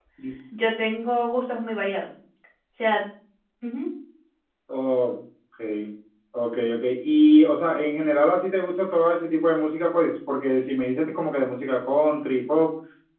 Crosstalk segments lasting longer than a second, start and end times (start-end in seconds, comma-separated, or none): none